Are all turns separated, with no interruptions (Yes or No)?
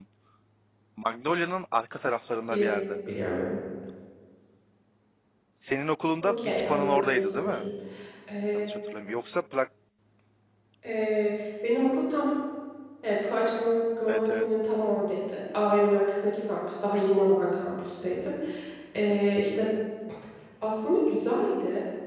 No